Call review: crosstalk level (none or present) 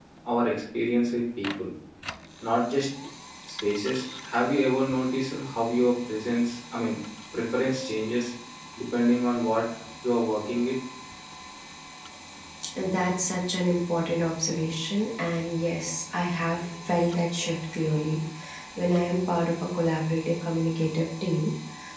none